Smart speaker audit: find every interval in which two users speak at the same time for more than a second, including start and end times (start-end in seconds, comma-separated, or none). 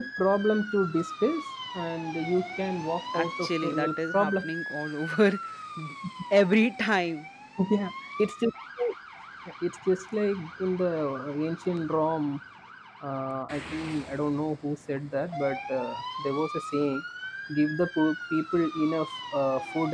3.1-4.5